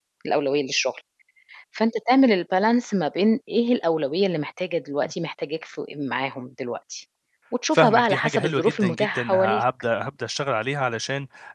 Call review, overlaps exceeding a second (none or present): present